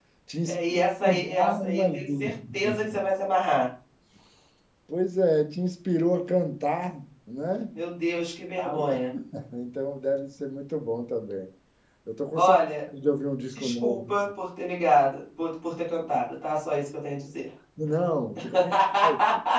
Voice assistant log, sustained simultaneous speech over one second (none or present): present